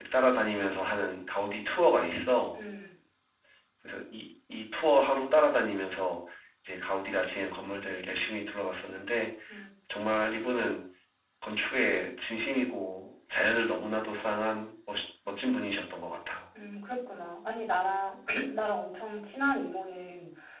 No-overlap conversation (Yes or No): Yes